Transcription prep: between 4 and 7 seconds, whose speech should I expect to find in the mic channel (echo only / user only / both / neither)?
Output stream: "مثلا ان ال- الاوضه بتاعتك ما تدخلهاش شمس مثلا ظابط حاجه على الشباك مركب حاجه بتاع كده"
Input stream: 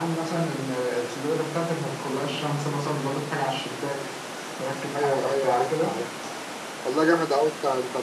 both